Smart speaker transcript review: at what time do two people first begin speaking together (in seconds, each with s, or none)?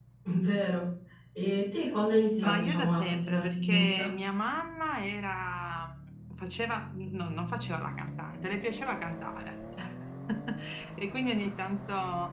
2.4 s